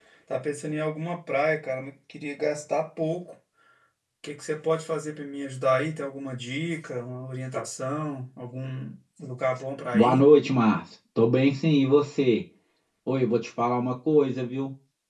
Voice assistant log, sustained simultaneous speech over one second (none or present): none